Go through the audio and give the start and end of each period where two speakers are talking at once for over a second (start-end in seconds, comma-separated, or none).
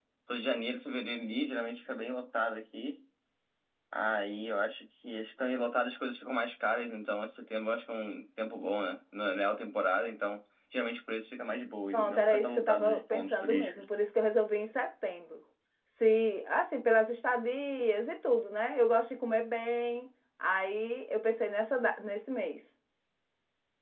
11.9-13.8